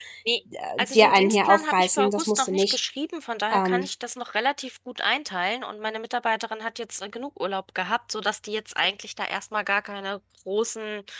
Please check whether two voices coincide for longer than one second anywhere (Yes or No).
Yes